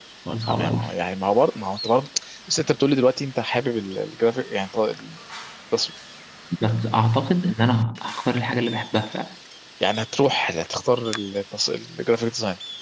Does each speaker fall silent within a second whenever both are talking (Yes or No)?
Yes